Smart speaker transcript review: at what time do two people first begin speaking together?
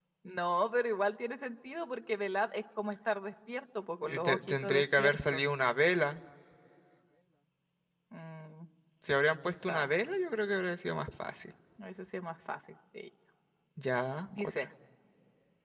4.0 s

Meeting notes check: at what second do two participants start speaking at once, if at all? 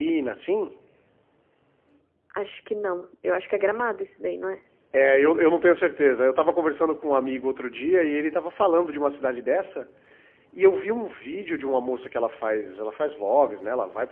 none

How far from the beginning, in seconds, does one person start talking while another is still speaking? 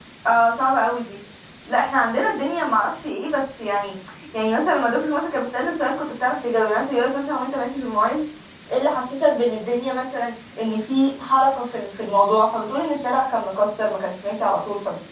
none

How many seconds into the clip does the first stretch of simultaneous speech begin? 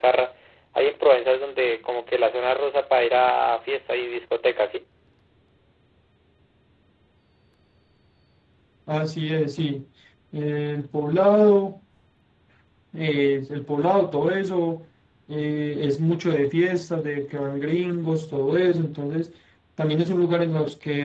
none

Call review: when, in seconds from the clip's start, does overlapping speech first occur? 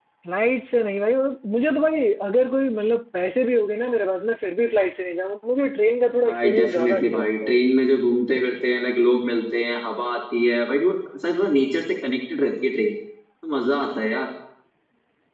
6.2 s

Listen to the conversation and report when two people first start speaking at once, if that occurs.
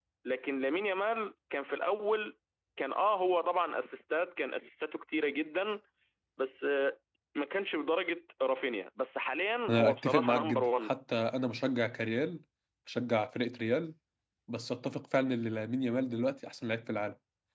9.7 s

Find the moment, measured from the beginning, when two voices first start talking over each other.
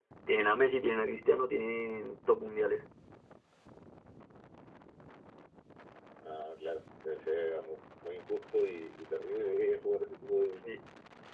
none

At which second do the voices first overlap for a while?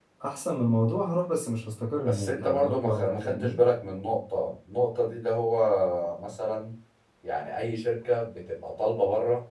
2.0 s

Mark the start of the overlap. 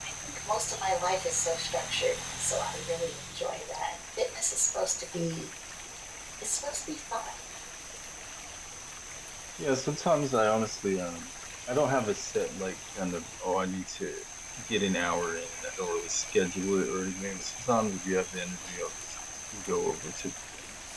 none

